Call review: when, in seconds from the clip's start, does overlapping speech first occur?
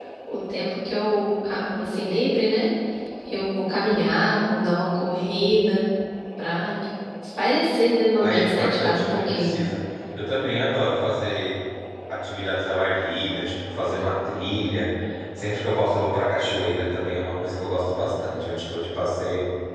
8.2 s

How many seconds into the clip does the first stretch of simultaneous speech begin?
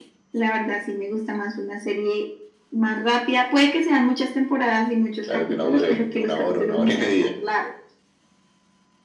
5.3 s

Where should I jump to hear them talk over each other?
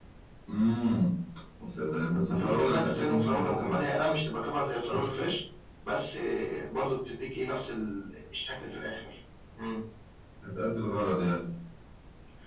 2.3 s

